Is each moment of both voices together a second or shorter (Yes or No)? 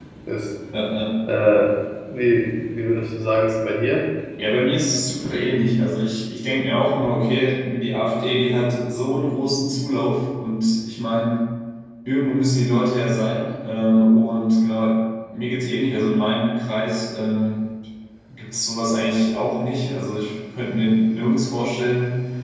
Yes